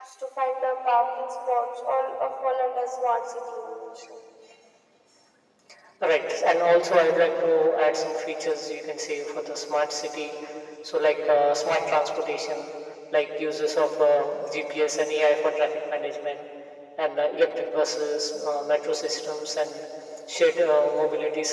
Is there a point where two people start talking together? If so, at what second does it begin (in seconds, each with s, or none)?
none